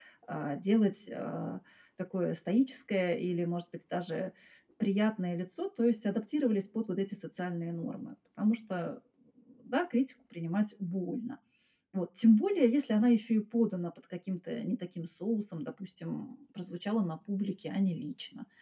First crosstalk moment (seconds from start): none

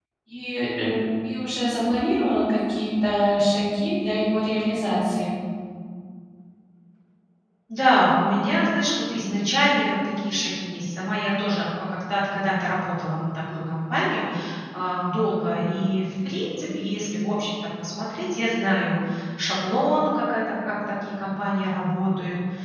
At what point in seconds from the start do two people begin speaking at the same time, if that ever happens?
none

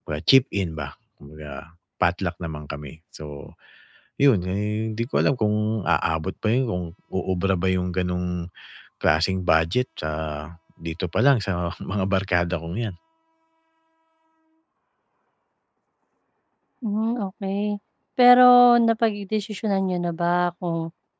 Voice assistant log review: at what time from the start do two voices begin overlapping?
none

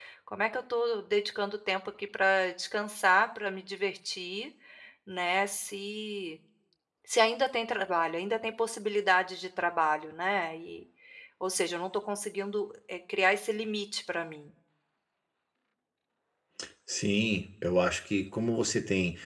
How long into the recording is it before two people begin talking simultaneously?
none

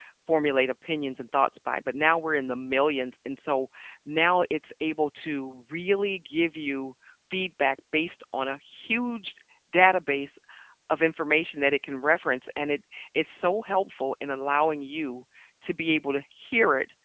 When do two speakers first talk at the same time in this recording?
none

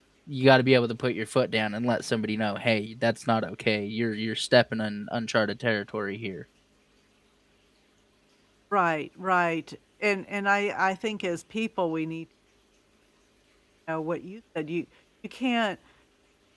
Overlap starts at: none

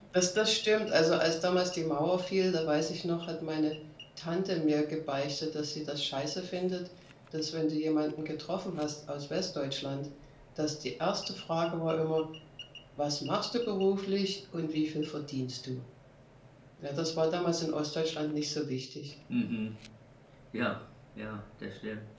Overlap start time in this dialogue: none

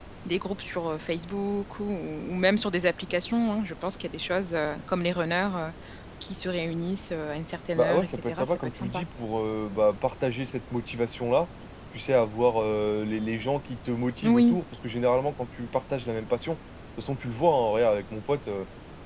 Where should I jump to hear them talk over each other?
8 s

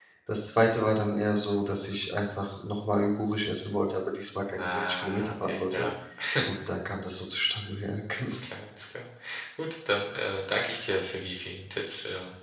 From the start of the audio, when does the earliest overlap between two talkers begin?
5 s

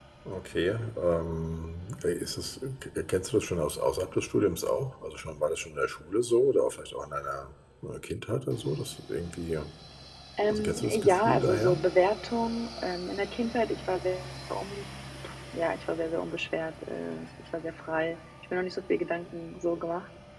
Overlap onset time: 11 s

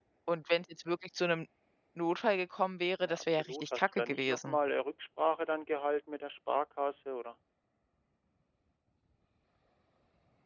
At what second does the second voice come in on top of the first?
3 s

